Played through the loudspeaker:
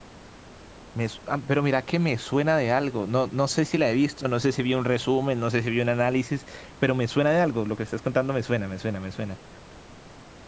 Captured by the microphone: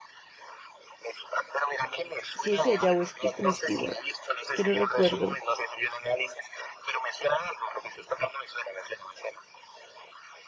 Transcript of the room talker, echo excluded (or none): si es ella o es Kristen Stewart. Es que no recuerdo.